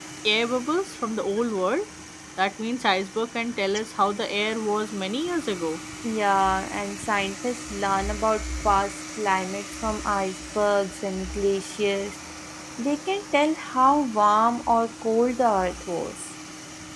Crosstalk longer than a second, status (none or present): none